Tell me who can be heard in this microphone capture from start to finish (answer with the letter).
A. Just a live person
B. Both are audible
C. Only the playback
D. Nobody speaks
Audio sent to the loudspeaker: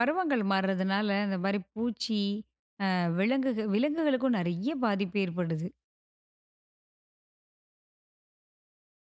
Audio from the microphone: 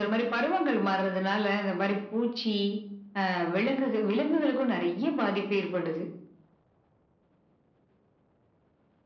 C